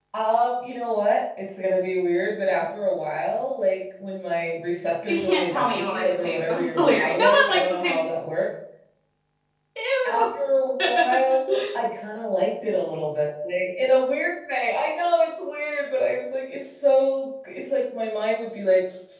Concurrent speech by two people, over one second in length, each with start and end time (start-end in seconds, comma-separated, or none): 5.1-8.0